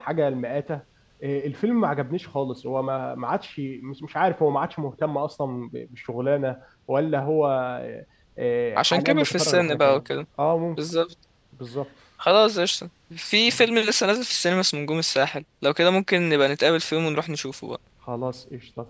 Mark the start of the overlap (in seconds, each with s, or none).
8.8 s